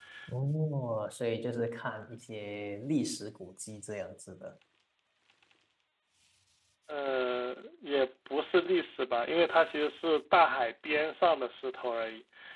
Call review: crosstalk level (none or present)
none